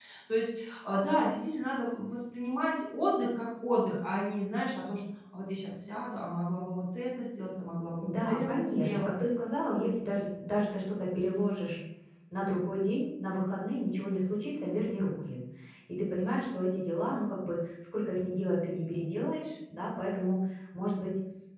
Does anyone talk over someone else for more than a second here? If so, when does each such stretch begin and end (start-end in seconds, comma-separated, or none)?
8.0-9.2